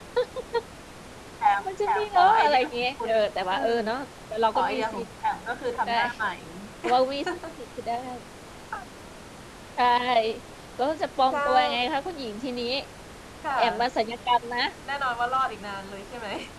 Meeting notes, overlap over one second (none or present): present